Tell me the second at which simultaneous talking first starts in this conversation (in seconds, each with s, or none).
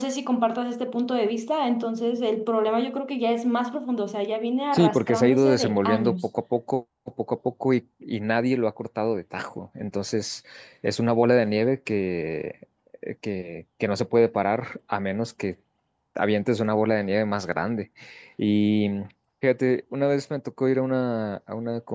4.7 s